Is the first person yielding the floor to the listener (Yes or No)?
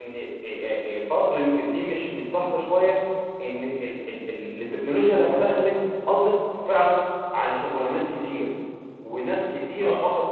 No